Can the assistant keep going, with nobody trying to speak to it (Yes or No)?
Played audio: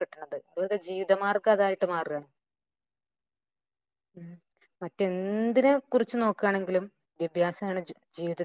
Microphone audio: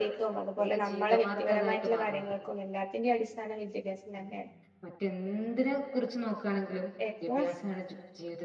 No